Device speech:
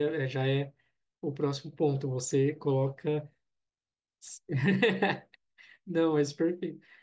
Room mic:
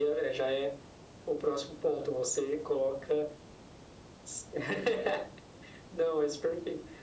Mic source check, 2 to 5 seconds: echo only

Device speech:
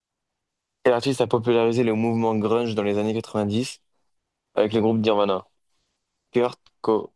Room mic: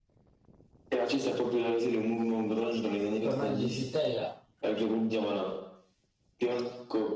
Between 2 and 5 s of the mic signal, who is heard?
both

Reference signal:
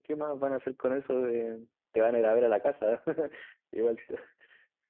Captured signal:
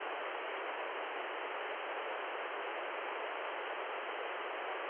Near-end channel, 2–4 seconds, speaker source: neither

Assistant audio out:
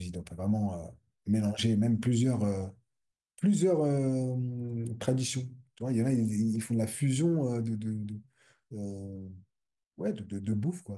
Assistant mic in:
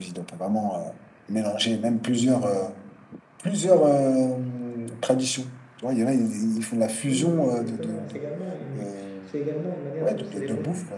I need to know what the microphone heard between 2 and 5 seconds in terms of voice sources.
echo only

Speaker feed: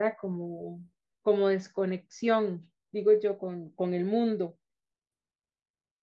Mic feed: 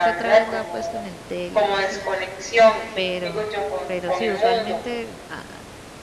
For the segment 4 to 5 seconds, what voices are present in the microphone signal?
both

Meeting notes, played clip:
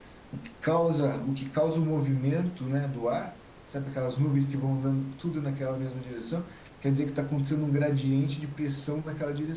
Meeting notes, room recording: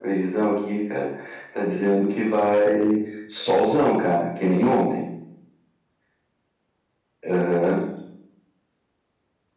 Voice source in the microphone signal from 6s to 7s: neither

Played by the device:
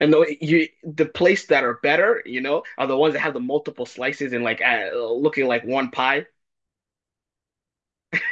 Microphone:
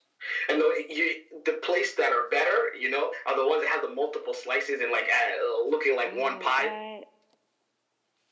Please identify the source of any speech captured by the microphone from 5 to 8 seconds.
both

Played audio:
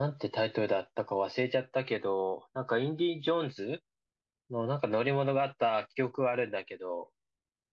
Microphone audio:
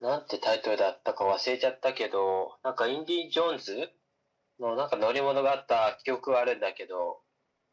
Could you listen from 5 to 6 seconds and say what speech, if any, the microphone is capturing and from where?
echo only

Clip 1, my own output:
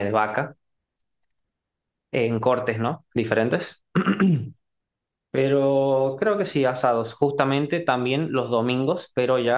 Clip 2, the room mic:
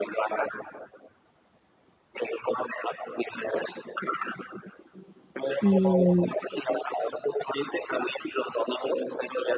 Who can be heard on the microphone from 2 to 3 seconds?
echo only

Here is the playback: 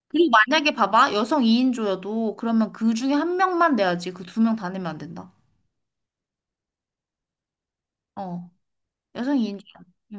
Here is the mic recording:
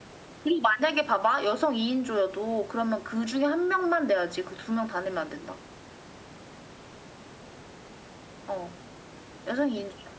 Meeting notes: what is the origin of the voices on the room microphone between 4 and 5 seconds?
echo only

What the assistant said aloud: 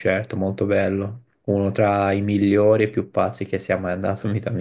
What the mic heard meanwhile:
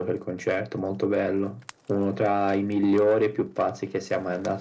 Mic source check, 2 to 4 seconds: echo only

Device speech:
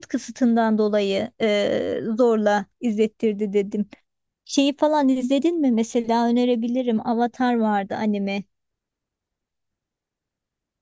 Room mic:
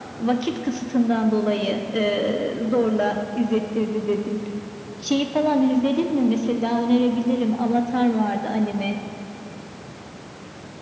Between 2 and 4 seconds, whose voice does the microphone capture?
echo only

